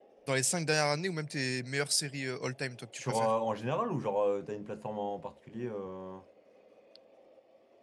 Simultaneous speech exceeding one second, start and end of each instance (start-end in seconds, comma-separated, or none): none